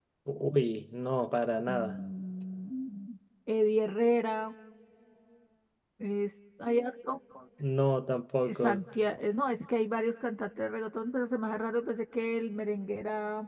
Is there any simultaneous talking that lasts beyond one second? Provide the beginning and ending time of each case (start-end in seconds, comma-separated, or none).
none